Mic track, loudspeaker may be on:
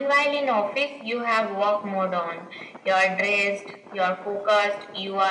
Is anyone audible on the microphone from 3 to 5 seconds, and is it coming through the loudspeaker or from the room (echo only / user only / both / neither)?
echo only